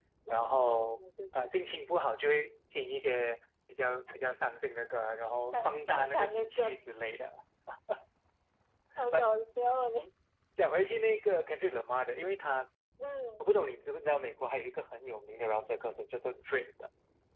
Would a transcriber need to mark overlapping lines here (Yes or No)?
Yes